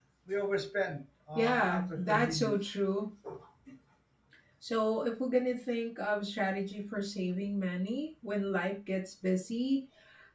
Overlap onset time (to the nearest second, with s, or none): 1 s